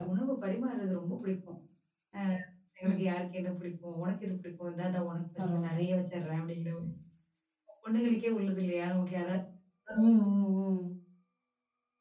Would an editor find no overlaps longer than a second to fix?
Yes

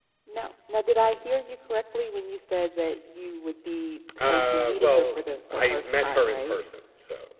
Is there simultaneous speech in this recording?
Yes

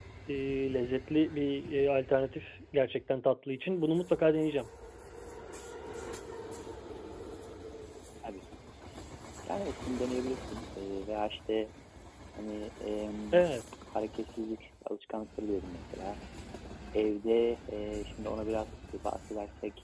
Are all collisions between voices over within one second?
Yes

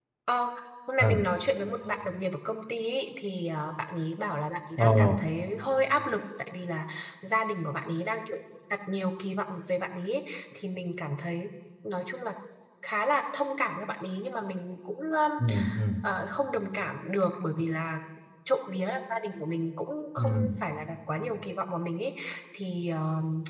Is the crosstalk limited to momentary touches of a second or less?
Yes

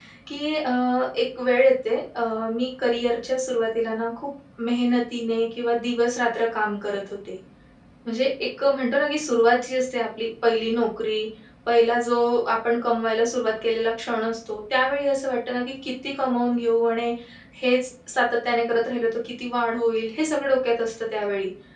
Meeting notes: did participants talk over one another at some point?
No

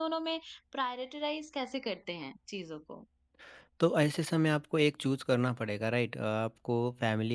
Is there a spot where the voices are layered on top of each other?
No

